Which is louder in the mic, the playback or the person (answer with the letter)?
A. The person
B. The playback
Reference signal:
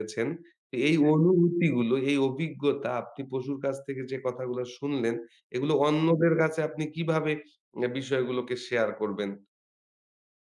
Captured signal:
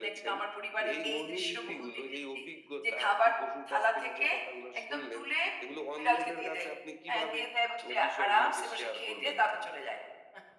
A